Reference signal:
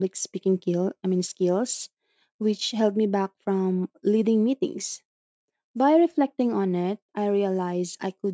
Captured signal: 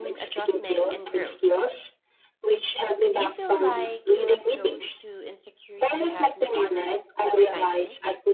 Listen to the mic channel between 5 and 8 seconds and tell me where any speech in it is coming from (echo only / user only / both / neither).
both